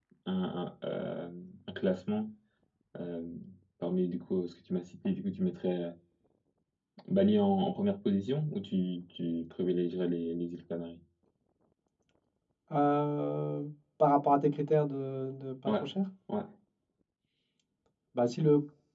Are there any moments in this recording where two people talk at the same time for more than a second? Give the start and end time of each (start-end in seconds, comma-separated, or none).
none